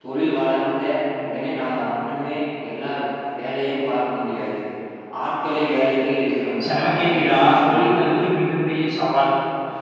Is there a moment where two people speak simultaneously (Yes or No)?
Yes